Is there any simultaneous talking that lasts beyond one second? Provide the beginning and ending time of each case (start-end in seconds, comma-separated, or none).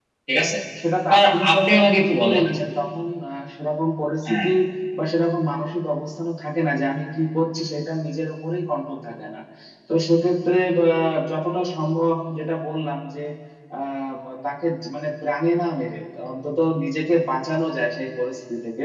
1.1-2.4